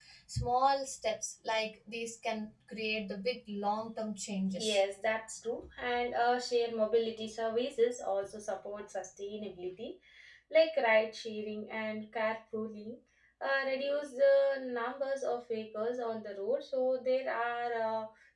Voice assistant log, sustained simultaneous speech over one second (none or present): none